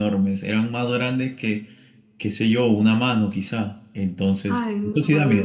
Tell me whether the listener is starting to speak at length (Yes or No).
Yes